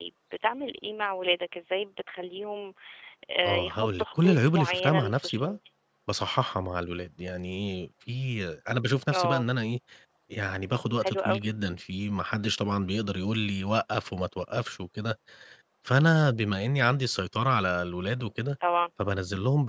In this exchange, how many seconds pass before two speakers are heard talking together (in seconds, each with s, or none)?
3.4 s